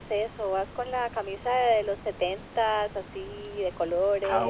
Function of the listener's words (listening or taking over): taking over